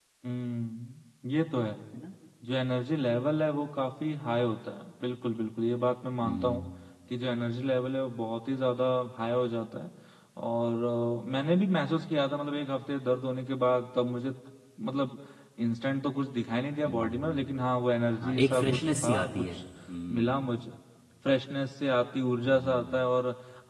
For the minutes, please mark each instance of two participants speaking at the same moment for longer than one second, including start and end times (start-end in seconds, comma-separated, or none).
18.2-19.6